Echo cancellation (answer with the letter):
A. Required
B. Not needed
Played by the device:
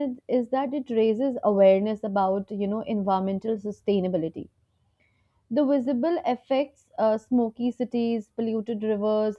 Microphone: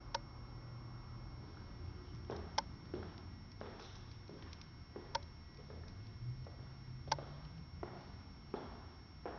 B